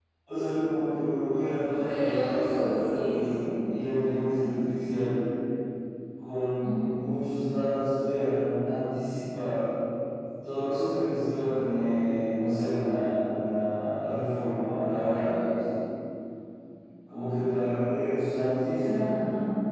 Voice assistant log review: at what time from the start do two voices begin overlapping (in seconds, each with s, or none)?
1.7 s